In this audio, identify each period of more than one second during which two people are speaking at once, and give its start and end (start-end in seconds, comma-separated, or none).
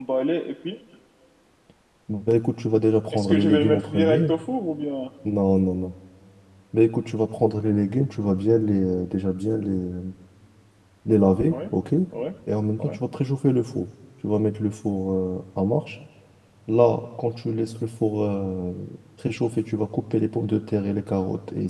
3.1-4.3